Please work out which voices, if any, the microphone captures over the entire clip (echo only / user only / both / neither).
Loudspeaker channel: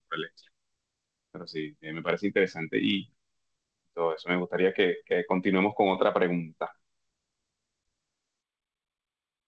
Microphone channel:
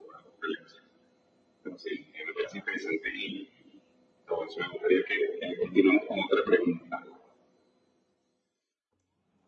echo only